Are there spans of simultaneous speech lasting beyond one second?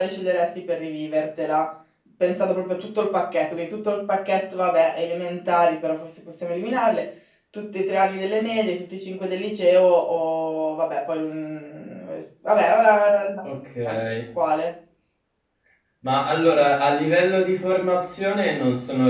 No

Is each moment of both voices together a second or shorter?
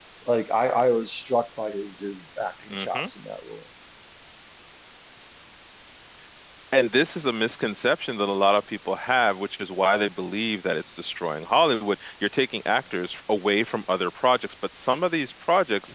Yes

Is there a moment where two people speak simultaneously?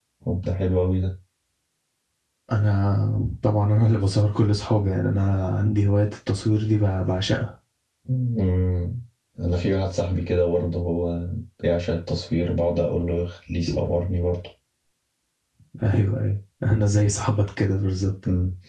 No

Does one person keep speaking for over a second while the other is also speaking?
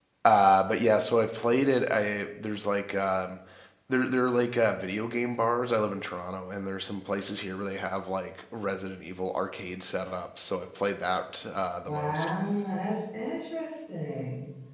No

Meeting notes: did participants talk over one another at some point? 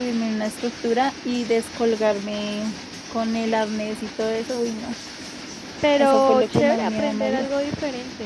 Yes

